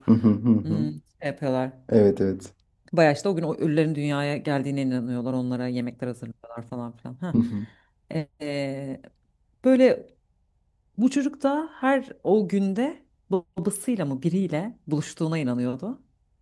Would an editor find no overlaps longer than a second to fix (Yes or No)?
Yes